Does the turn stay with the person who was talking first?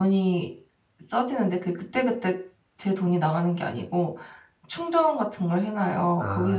Yes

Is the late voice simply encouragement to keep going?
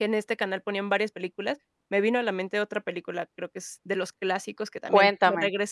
Yes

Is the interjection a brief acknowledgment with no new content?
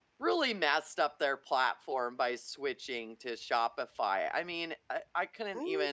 Yes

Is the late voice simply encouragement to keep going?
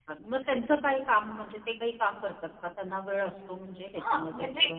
No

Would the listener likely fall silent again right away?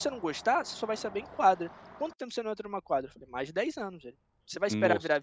Yes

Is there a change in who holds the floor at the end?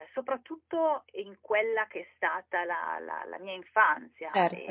No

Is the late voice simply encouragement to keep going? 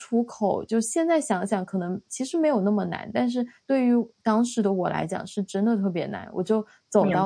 Yes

